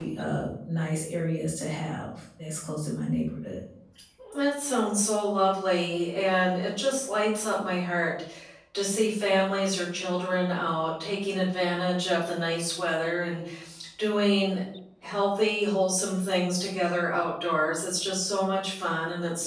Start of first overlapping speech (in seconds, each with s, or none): none